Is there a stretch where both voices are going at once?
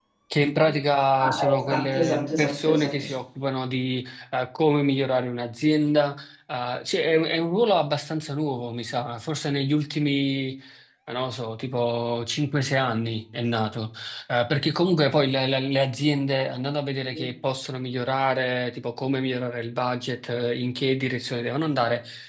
Yes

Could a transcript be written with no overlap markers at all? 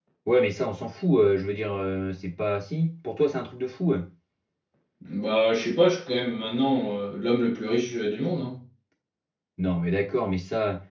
Yes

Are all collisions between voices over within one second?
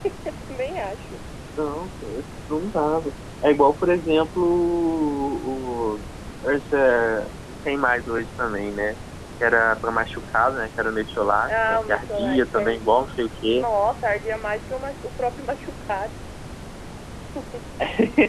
No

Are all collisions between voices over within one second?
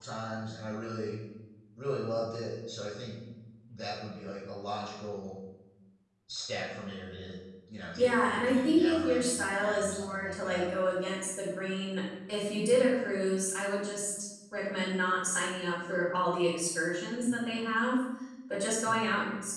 No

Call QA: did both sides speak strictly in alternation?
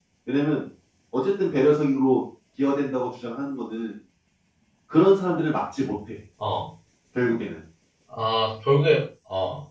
Yes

